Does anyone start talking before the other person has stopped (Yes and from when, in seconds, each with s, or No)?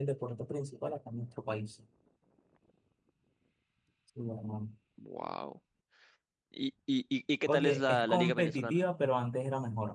Yes, from 7.5 s